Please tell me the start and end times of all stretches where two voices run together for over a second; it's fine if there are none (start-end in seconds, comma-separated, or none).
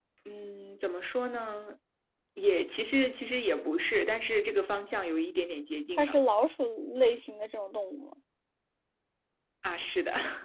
none